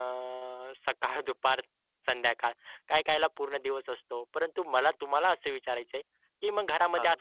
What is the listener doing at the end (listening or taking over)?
listening